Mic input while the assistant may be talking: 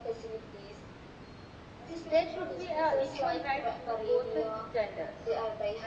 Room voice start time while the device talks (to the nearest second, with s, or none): 2 s